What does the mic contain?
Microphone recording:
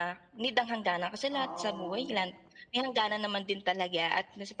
both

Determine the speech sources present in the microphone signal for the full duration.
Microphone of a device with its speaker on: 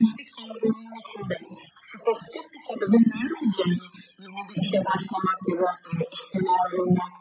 echo only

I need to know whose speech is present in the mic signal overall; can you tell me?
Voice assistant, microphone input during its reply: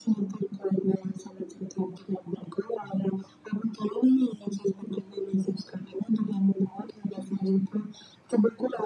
echo only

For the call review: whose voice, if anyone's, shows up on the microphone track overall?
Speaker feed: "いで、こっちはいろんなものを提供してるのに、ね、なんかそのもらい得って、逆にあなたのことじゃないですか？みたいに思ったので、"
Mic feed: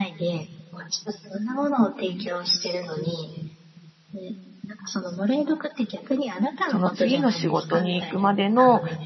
both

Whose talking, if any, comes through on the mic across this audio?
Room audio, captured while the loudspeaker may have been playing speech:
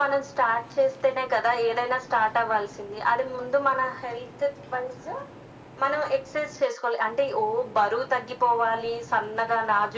echo only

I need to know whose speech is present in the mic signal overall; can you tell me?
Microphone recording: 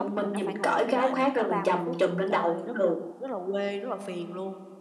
both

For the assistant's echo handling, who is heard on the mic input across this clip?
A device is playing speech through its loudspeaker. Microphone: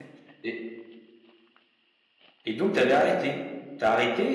user only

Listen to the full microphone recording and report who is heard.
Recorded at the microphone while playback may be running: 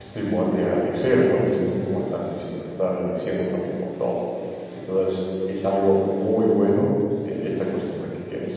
user only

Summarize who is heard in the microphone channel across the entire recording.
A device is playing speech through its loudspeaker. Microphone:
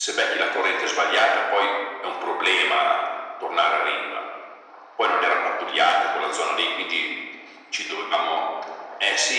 echo only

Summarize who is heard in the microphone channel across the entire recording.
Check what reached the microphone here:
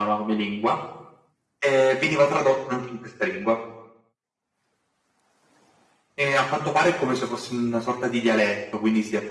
echo only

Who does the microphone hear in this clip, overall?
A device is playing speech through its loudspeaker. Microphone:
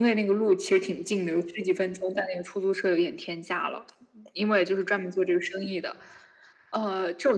echo only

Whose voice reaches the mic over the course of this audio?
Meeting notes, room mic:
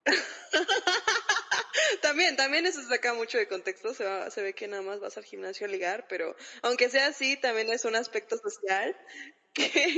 echo only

